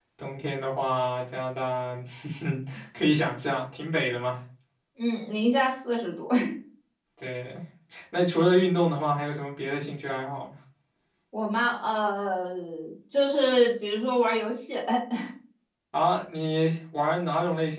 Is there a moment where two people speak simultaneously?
No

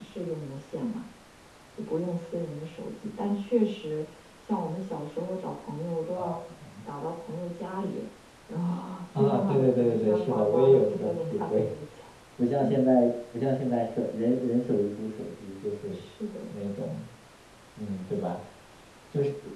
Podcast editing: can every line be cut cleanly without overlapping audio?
No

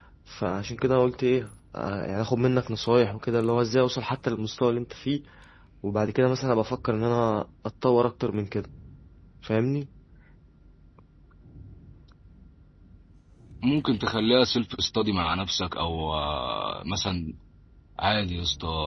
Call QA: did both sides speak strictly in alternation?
Yes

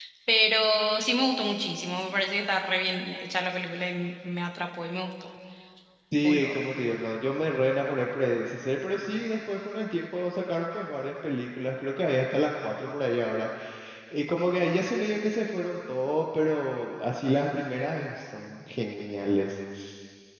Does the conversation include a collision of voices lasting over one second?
No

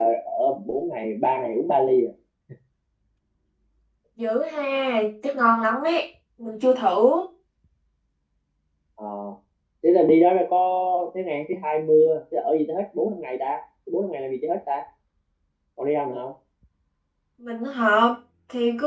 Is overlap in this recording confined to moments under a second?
Yes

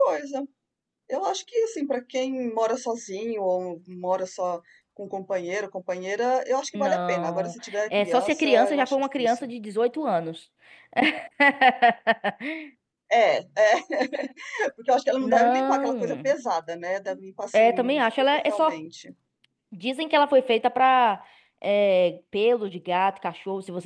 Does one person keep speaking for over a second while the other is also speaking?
Yes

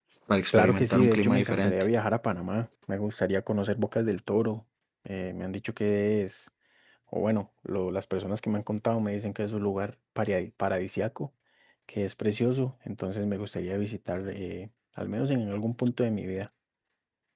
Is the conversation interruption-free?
No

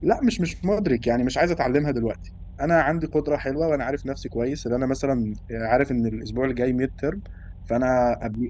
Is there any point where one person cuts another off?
No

